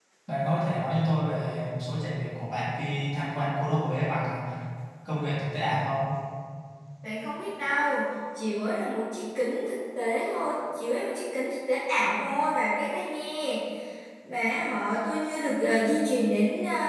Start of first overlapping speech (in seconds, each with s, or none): none